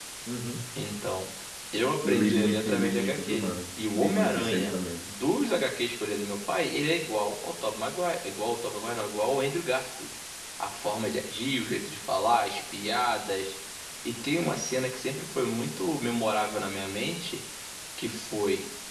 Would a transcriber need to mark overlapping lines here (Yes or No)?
Yes